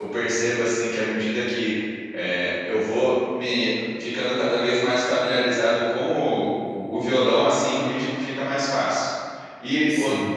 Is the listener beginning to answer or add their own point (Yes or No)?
No